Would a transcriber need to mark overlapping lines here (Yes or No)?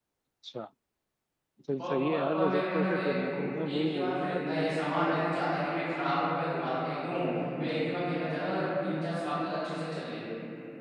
Yes